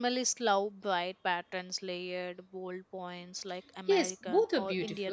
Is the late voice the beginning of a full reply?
Yes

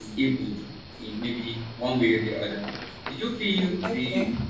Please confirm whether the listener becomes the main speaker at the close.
No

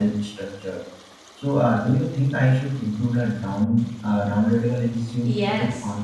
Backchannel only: No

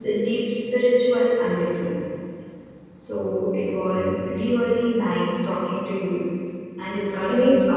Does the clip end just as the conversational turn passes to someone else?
No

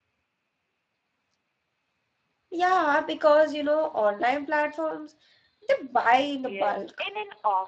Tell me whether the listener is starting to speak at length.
Yes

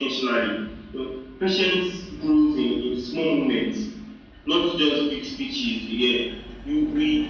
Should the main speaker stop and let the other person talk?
No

